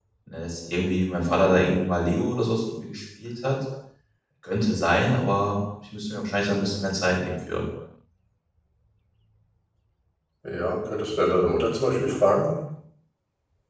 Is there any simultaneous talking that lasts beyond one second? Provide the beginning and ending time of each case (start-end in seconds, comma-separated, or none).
none